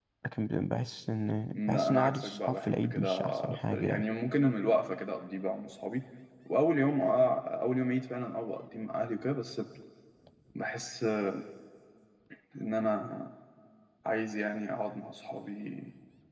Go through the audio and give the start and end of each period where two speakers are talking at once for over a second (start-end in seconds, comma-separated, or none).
1.5-4.0